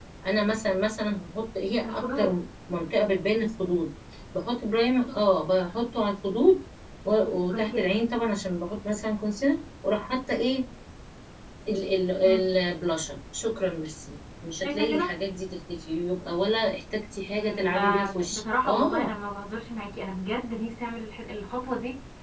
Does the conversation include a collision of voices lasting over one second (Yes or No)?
Yes